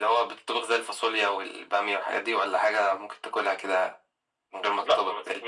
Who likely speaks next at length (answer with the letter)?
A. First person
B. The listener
B